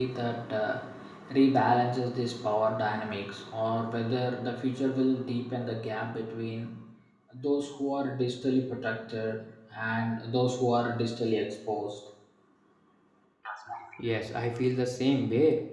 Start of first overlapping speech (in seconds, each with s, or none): none